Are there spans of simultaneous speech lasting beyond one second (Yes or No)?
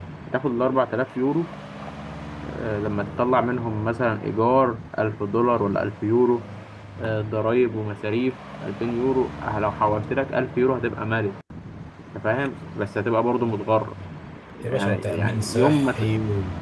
Yes